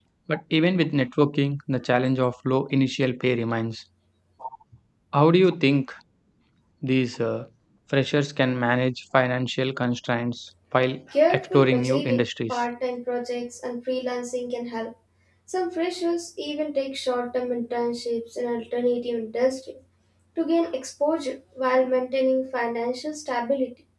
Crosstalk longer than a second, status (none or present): present